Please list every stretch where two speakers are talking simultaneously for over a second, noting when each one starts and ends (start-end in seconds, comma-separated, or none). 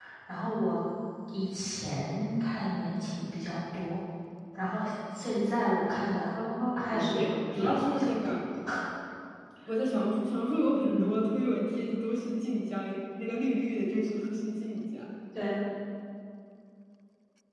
6.2-8.4